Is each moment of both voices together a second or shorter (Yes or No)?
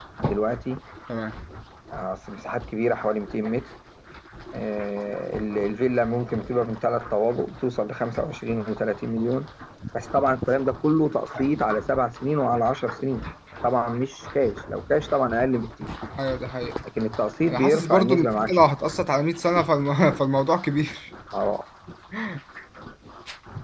No